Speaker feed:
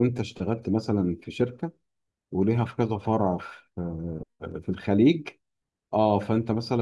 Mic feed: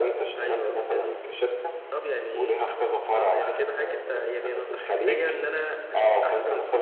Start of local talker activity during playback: 0 s

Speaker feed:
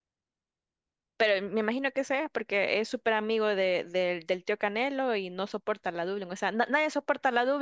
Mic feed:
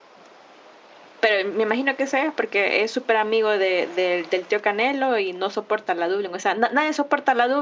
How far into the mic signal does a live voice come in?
none

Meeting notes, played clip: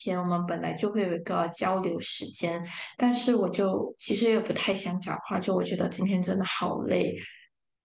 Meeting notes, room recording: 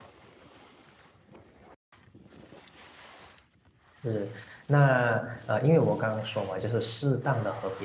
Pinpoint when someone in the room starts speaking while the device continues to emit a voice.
4 s

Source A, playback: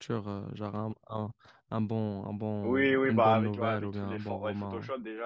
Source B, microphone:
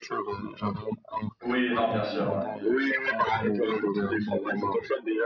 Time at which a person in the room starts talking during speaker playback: 1 s

